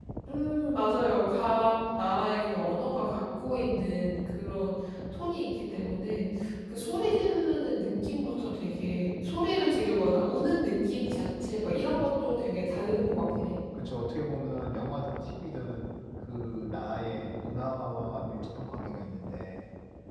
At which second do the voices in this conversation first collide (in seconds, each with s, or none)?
none